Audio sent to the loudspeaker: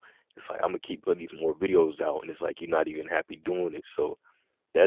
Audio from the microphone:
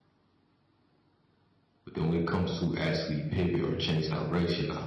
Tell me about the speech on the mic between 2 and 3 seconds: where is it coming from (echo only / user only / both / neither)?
user only